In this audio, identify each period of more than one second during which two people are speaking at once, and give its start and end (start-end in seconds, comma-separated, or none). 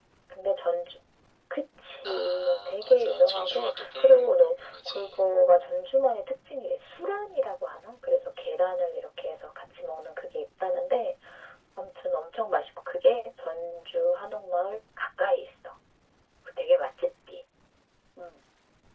2.0-5.3